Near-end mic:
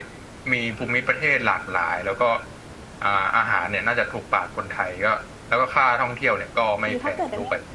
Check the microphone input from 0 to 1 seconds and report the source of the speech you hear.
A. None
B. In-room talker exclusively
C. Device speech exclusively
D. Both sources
C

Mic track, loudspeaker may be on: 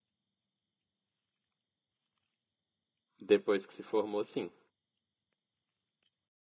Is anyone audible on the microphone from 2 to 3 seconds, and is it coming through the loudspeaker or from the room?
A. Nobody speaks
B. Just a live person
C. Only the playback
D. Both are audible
A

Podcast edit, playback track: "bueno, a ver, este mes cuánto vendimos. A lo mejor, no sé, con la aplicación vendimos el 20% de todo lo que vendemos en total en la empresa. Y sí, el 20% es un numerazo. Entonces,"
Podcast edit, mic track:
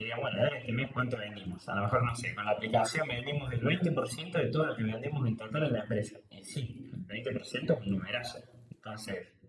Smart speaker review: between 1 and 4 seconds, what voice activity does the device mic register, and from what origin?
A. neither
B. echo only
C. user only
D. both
B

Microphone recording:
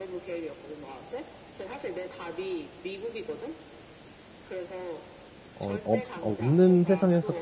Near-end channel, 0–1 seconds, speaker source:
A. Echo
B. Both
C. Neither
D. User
A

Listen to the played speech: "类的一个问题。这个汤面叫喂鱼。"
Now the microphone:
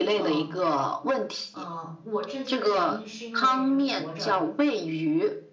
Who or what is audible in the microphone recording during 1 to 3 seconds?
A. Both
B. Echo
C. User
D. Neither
A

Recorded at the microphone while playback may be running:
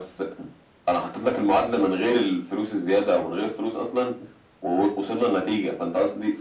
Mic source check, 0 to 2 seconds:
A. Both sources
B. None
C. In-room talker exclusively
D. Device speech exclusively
D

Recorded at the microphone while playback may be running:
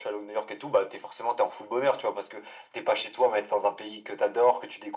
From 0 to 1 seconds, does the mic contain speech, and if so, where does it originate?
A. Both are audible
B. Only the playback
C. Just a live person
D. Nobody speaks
B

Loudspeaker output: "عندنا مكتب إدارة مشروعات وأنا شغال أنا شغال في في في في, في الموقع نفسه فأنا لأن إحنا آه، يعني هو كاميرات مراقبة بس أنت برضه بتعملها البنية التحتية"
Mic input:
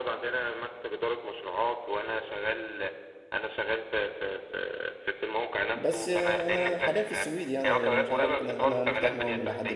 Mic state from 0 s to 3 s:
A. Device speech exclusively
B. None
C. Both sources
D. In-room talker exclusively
A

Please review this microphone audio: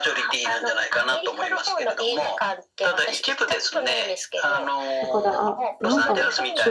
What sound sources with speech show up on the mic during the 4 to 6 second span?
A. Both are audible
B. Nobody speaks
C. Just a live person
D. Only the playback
A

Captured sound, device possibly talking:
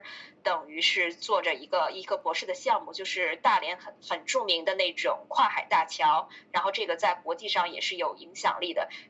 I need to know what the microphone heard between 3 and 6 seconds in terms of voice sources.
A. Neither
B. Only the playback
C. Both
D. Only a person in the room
B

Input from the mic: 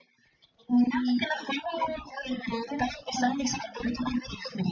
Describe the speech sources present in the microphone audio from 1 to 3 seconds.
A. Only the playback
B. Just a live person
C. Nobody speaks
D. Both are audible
A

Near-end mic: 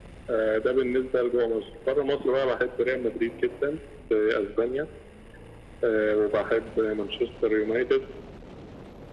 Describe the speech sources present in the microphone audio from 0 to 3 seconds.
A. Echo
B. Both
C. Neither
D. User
A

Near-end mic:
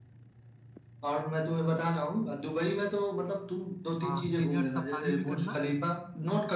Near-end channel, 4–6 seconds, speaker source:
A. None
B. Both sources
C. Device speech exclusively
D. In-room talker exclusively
B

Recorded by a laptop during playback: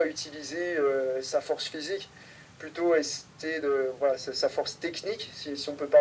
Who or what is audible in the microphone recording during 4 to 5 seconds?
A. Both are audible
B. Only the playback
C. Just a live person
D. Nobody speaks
B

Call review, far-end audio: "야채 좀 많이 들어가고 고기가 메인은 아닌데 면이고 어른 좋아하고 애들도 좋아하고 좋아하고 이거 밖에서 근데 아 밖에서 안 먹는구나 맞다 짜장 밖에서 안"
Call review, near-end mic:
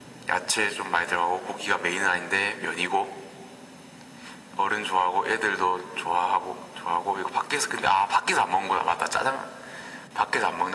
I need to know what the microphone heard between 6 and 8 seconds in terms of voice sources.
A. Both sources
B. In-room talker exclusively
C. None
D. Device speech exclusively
D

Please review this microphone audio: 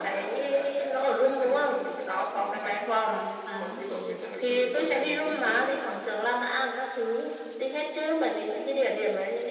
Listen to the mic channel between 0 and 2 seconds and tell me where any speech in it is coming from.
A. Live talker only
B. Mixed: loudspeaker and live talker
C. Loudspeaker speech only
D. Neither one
C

